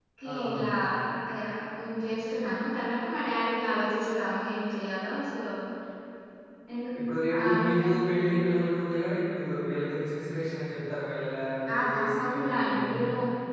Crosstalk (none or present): present